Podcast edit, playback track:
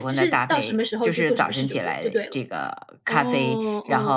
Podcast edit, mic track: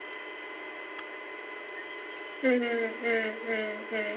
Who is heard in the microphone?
user only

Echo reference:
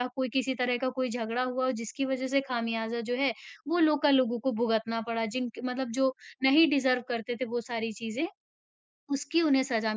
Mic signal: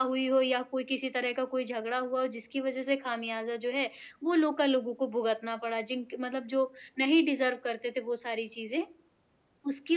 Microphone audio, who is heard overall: echo only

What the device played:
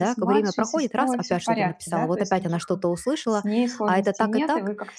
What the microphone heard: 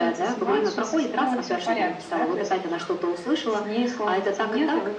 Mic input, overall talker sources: echo only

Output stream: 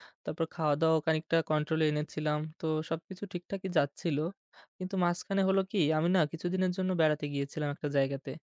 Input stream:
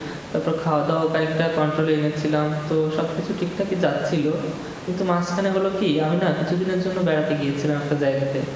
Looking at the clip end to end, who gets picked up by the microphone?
echo only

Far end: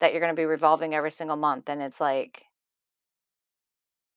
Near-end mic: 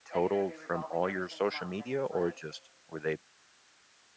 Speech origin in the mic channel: both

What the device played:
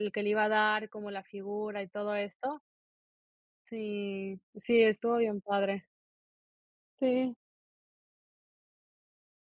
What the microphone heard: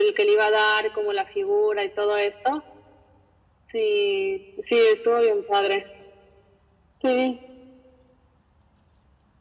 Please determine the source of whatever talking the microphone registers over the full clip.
echo only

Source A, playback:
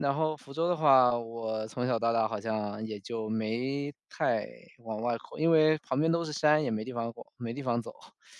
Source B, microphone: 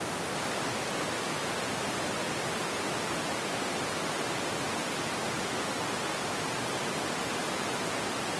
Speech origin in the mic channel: neither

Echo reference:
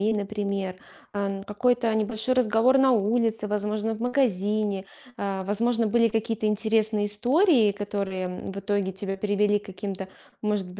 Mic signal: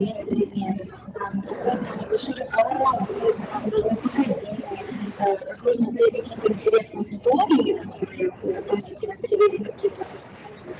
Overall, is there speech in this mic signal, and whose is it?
echo only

